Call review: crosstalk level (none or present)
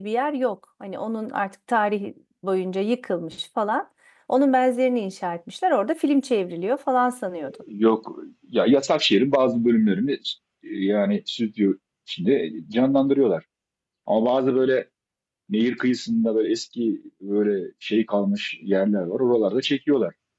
none